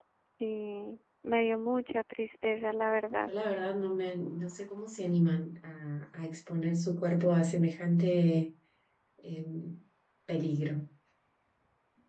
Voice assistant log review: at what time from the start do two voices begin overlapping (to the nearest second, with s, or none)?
none